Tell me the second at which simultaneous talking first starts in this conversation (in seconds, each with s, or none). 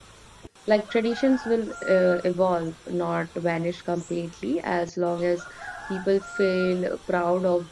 none